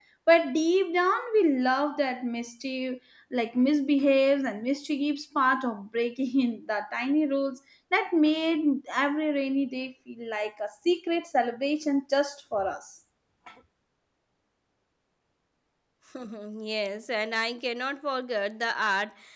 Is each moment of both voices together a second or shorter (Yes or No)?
Yes